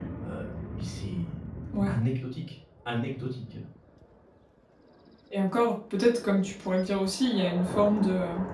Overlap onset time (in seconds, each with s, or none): none